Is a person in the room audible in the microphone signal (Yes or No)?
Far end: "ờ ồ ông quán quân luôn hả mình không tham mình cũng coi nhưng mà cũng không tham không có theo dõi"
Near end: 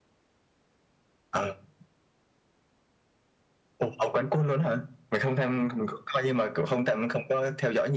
Yes